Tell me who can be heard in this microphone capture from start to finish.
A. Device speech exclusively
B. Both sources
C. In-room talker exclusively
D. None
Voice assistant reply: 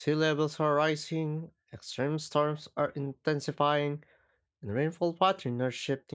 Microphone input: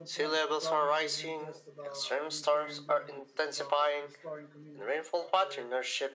B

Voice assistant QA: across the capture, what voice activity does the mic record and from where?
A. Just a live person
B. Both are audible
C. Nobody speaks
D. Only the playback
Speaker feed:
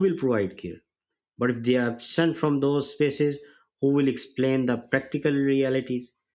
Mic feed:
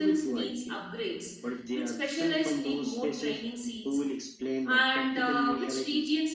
B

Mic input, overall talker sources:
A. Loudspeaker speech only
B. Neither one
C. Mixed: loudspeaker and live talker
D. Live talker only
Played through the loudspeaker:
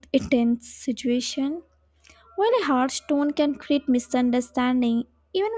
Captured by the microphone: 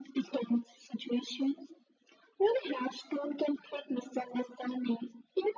A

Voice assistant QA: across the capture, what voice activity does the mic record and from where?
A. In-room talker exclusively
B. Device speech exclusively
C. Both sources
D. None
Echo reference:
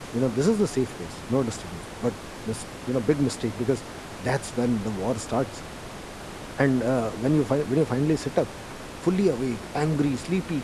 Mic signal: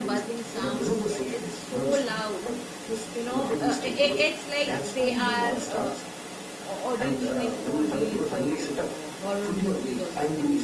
C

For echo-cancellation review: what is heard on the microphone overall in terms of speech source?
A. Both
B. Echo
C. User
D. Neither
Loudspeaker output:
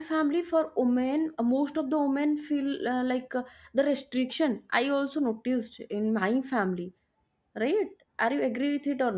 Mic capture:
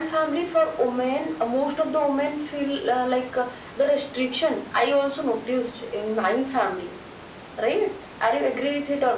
B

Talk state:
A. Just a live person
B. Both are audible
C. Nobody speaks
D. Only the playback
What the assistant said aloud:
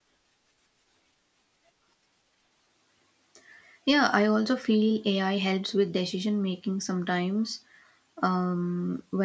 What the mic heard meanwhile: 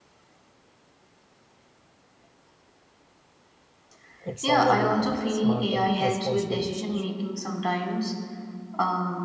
B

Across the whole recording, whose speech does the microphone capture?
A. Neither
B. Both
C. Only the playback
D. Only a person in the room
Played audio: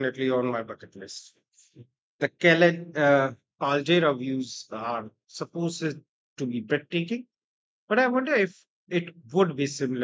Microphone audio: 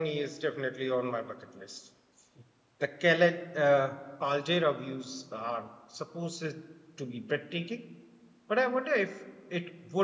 C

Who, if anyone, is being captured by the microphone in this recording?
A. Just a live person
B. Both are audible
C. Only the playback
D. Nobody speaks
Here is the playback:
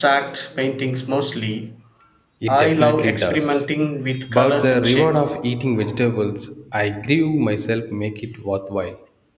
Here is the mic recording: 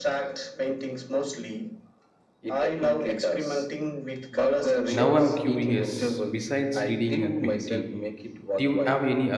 B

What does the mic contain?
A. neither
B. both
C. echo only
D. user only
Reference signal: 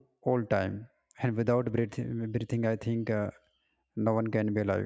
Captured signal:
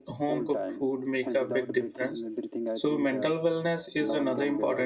B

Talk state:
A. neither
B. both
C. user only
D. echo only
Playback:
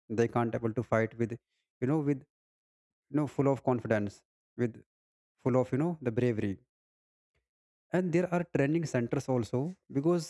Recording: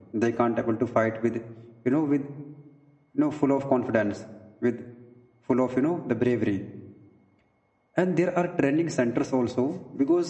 D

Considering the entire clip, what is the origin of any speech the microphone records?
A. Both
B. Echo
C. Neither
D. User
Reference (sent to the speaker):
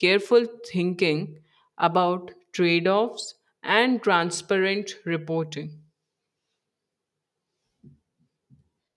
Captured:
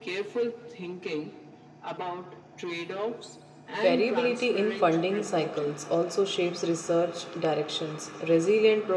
A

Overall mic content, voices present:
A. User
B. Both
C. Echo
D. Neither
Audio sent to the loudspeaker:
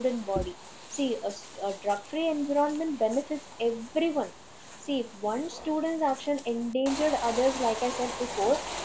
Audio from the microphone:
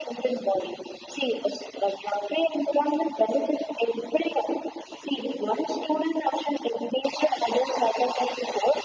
C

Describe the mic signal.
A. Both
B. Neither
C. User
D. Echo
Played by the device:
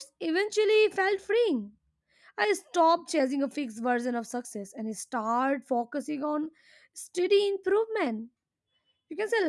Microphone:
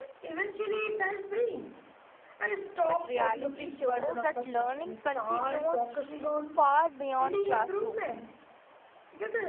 A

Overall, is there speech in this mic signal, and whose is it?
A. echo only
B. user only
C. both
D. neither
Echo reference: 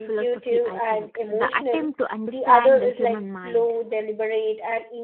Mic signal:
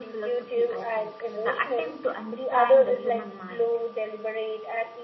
A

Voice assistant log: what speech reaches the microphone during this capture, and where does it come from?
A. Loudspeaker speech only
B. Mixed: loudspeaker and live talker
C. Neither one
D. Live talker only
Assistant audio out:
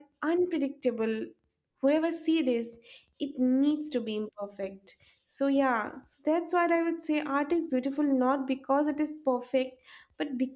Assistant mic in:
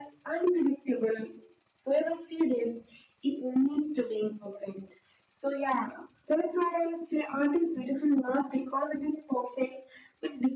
A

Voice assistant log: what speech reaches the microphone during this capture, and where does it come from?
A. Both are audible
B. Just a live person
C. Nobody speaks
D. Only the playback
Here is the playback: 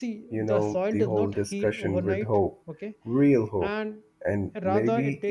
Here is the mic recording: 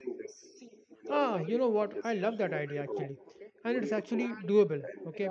A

